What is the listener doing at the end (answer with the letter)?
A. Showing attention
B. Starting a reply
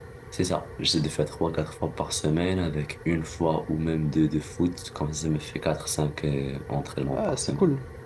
B